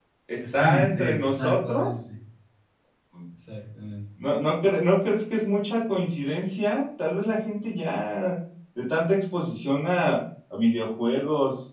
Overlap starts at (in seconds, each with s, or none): 0.5 s